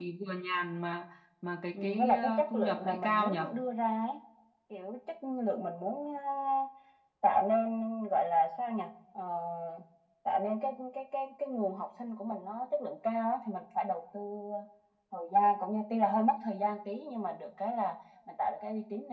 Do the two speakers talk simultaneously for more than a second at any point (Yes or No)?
Yes